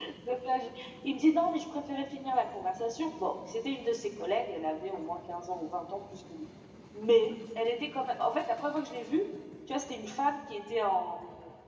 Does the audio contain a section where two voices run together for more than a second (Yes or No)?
No